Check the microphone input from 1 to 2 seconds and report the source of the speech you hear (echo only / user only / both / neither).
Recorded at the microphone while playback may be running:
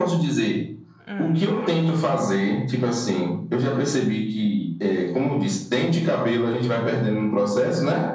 both